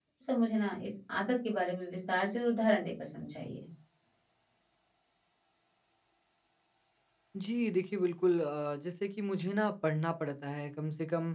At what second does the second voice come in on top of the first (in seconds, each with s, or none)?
none